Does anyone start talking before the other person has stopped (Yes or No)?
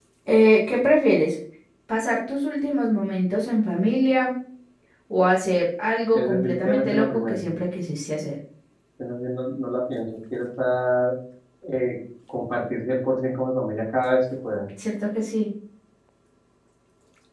Yes